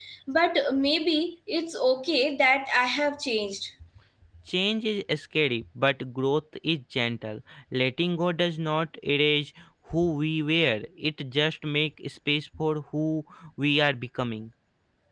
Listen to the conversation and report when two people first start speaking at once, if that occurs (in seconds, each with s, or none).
none